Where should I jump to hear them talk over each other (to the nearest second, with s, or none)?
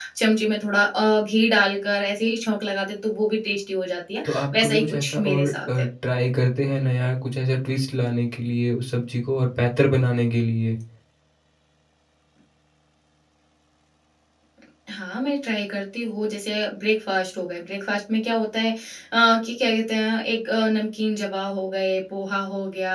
4 s